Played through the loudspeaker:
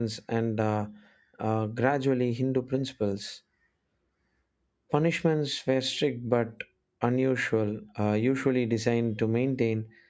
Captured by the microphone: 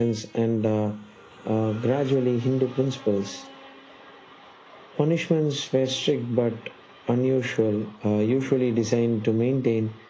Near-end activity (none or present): none